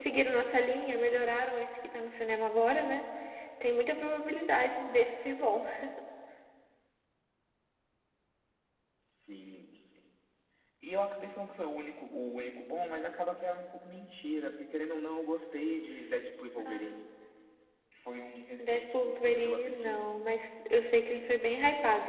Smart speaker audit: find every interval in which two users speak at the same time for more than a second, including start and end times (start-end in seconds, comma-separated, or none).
18.6-20.0